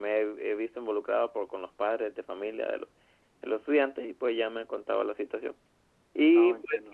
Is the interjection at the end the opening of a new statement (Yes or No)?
No